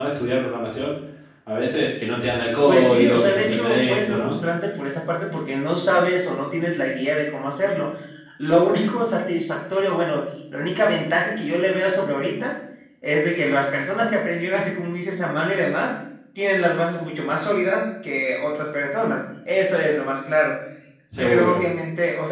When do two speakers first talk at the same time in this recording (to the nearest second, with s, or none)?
3 s